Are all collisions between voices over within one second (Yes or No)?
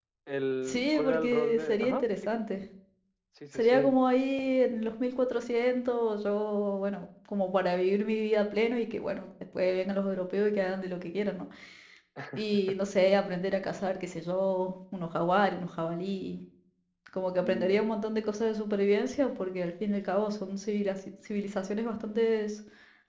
No